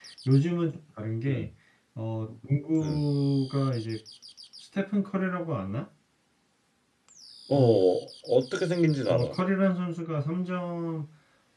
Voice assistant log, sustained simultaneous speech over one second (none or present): none